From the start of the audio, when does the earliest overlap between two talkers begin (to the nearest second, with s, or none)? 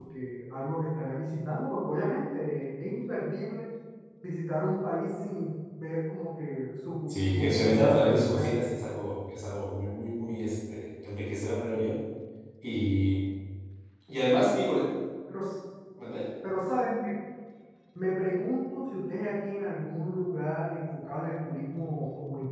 7 s